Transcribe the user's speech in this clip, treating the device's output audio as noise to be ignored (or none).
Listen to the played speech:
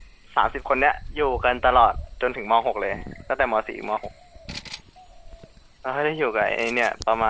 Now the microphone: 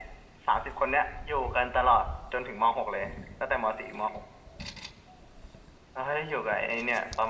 none